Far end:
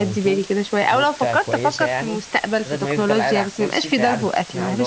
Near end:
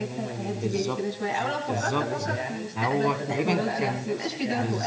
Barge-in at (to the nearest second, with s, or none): 1 s